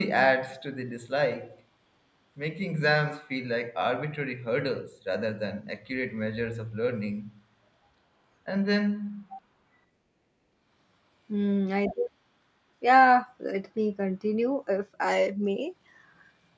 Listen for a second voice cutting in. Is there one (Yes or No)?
No